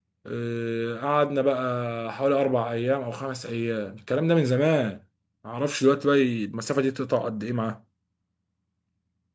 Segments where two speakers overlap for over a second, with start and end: none

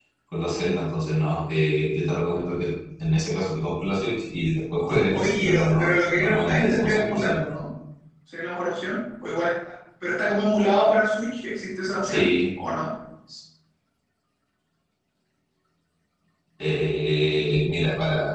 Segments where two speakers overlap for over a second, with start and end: 5.1-7.4

